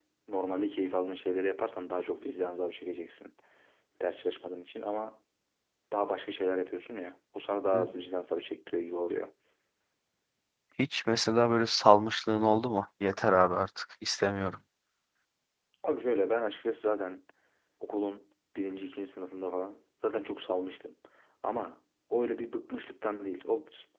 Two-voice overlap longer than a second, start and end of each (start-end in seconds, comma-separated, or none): none